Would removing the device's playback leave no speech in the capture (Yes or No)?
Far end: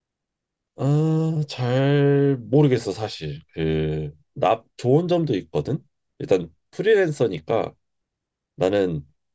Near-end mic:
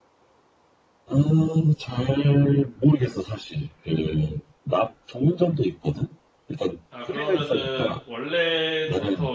No